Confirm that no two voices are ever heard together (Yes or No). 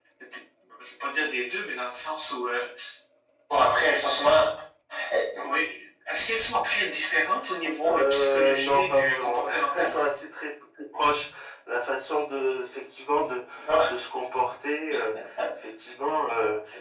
No